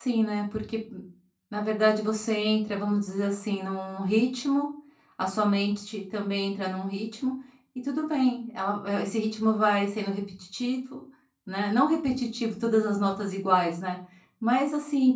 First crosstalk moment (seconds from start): none

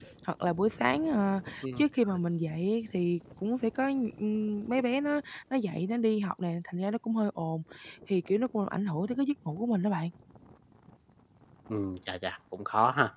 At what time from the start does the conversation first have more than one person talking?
none

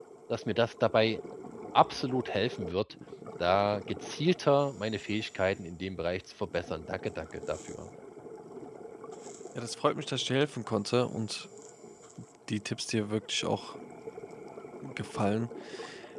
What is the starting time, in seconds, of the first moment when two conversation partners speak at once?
none

